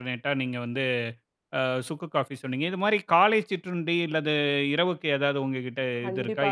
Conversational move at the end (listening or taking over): taking over